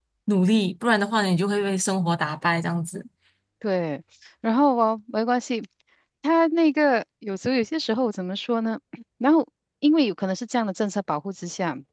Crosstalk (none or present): none